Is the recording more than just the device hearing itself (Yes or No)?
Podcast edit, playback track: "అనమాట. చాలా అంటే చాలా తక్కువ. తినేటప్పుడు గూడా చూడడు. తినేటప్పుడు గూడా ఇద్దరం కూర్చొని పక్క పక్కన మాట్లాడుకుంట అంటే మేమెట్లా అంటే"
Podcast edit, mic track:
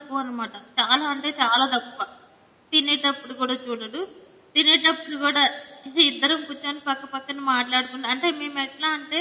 No